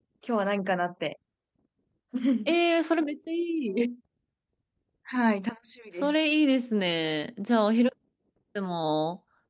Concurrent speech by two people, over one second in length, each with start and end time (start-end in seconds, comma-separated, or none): none